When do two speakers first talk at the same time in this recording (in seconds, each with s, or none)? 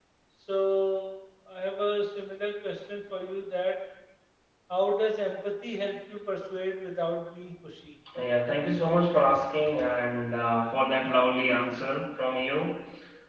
none